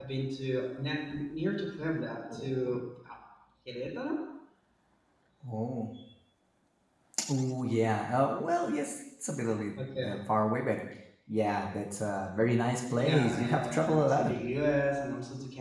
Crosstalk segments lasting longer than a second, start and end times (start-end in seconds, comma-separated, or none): 12.9-14.4